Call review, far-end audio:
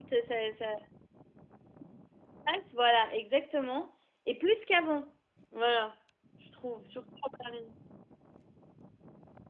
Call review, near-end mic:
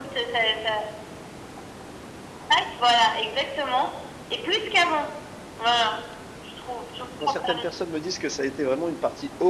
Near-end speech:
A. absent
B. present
B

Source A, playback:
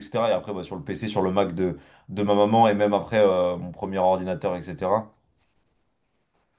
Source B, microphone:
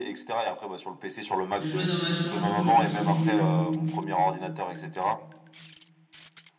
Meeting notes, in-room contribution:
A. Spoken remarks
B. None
A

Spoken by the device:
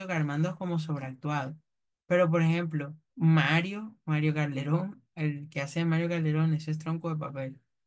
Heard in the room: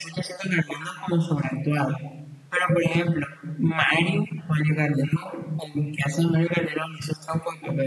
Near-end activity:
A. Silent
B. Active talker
A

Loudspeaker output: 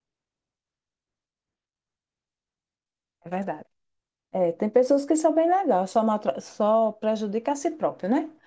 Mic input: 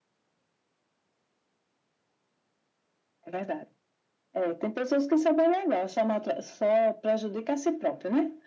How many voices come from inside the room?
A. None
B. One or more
A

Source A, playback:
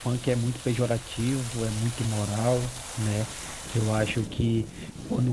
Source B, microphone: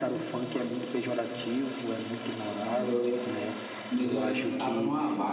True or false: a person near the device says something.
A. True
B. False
A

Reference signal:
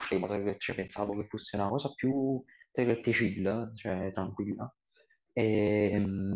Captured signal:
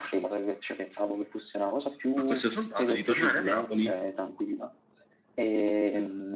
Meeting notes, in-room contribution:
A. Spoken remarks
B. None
A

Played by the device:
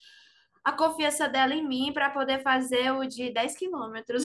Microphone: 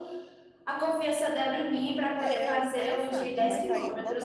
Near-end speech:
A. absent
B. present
B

